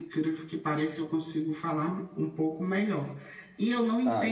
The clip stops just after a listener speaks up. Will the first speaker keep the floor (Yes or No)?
Yes